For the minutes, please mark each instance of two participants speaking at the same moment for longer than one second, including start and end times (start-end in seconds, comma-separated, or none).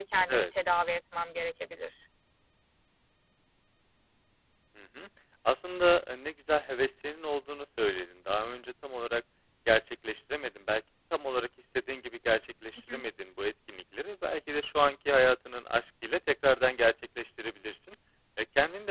none